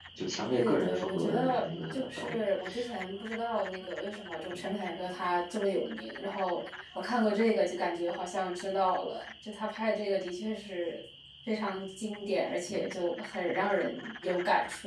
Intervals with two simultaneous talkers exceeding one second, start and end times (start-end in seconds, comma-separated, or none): 0.5-2.4